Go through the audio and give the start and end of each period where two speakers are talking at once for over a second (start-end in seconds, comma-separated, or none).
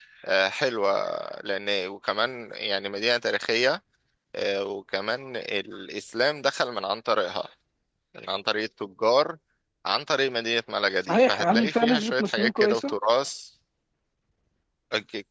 11.0-12.9